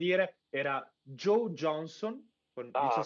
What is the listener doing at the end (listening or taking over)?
taking over